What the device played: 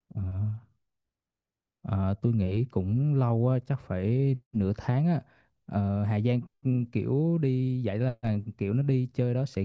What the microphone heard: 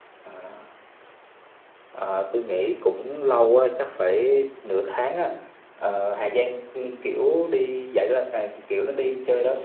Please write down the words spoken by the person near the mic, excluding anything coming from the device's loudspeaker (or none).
none